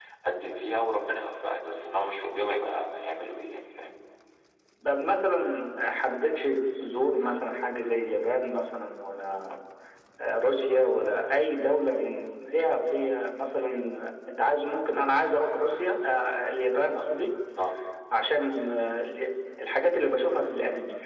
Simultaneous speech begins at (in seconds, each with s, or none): none